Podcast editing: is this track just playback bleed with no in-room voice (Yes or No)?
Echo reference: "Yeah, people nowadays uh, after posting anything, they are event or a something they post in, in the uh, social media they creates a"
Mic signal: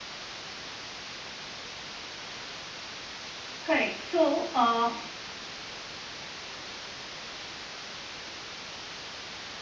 No